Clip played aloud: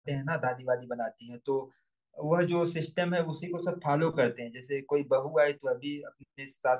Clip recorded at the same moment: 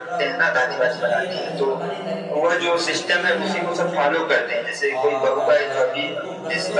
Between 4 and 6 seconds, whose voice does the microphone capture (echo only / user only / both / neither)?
both